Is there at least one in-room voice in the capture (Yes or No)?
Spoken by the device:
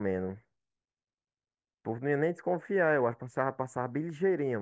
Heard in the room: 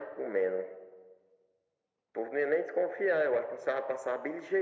No